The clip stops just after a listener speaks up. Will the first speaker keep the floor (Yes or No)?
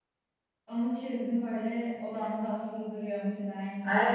No